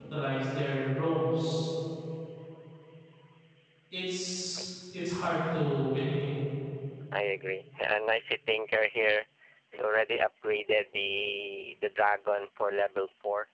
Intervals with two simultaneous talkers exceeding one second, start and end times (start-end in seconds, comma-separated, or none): none